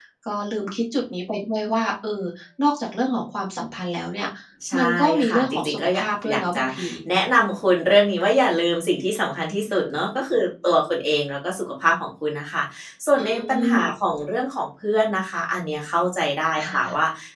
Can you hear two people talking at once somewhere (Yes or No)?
Yes